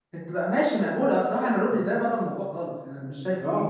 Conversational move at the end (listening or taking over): taking over